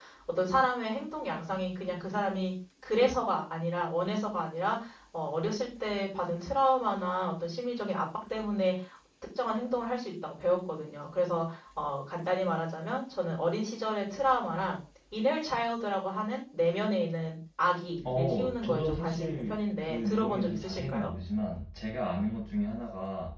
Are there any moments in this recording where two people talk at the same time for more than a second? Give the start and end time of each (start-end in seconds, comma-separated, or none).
18.0-21.1